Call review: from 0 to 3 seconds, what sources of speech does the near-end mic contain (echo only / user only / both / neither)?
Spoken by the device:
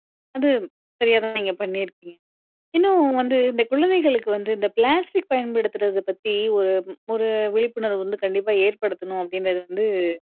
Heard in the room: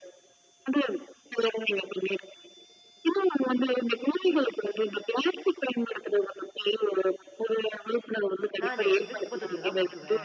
echo only